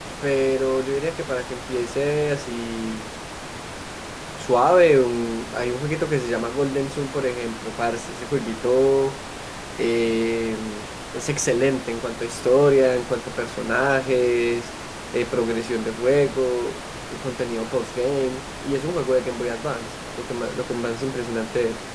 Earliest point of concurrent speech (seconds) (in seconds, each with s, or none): none